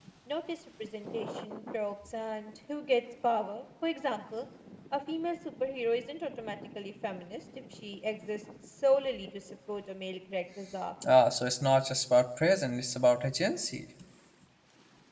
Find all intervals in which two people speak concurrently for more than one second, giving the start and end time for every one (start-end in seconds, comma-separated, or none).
none